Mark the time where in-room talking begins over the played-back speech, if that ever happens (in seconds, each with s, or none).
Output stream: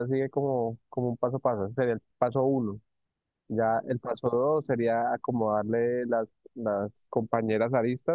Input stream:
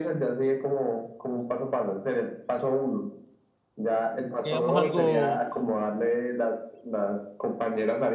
4.4 s